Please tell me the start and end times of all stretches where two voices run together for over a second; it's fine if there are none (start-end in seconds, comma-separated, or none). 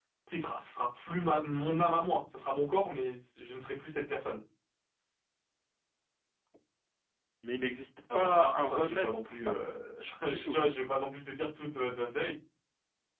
8.1-9.5